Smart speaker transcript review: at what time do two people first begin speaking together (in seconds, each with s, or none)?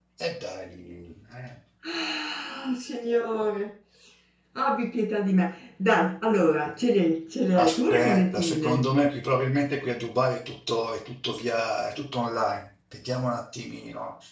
7.5 s